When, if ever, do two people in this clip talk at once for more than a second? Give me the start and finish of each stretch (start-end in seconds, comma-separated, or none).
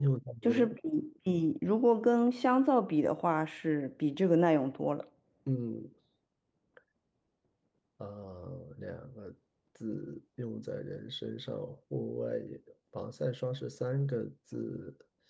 none